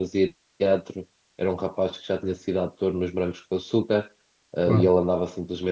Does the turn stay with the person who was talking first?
Yes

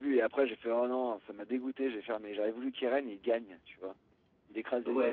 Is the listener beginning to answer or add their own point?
Yes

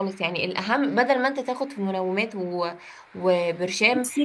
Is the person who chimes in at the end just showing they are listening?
Yes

